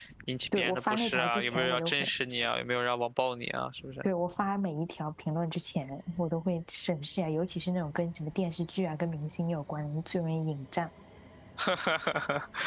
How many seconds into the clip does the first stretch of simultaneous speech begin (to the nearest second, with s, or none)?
1 s